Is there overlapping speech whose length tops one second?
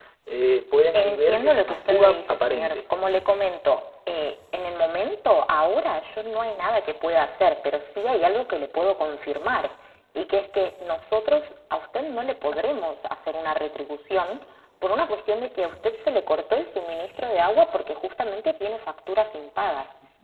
Yes, from 0.9 s

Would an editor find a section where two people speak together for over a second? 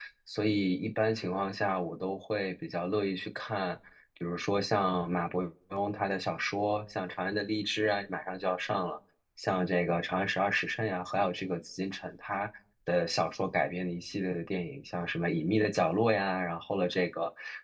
No

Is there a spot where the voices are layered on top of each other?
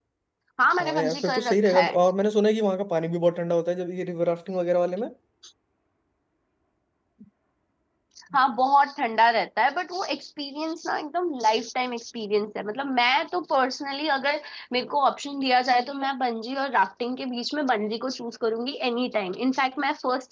Yes, from 0.8 s

